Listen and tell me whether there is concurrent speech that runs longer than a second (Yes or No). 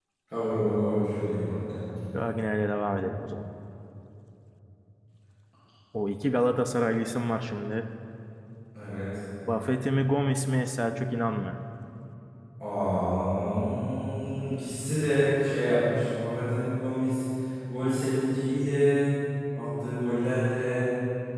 No